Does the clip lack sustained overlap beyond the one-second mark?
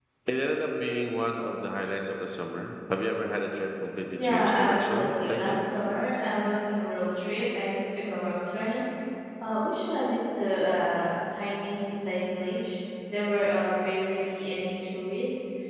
No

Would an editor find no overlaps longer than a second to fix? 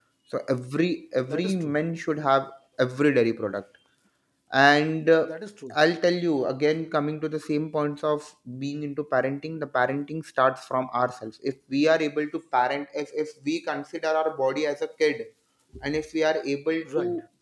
Yes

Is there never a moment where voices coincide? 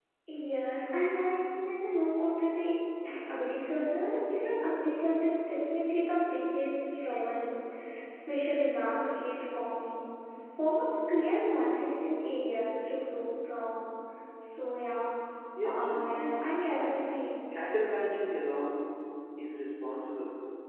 No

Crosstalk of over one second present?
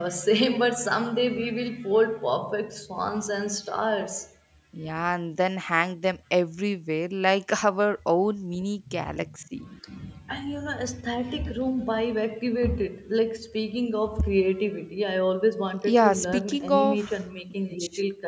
Yes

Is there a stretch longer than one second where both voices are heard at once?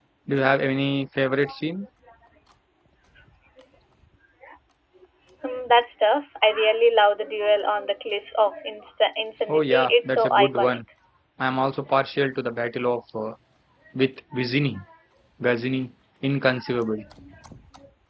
Yes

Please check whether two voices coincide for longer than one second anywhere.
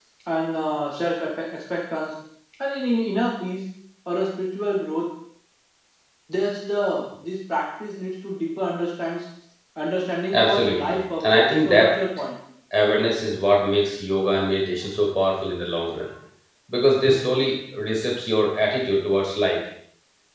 Yes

